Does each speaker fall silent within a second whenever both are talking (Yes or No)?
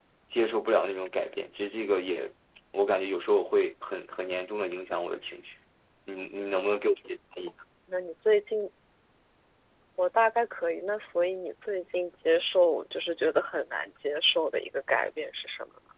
Yes